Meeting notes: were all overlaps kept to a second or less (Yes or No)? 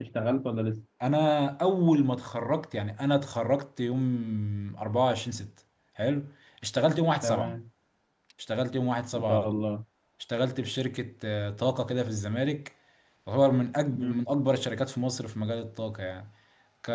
Yes